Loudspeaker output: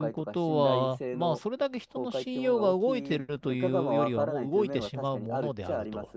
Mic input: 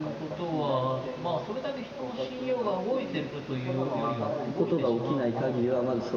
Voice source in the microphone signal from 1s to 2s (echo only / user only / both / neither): echo only